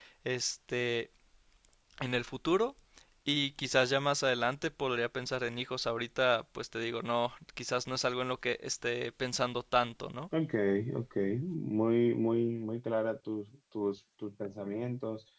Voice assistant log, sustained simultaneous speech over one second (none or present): none